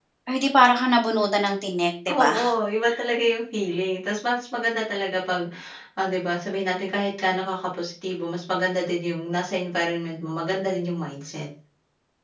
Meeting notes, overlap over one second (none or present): none